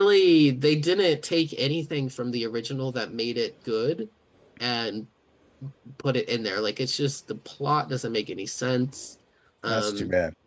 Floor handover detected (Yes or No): Yes